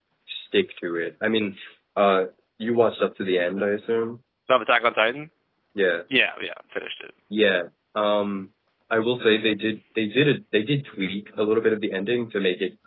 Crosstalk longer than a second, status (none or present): none